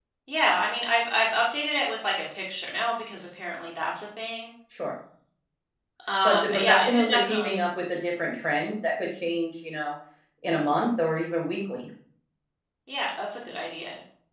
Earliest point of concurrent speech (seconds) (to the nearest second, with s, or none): 6 s